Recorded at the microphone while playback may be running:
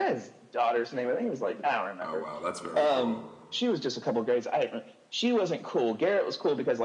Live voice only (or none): Oh, wow. That's very cool.